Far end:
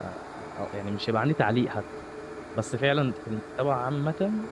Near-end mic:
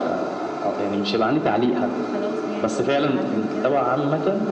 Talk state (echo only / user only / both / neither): both